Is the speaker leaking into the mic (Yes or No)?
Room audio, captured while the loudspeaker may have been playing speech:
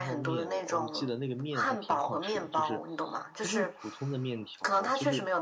Yes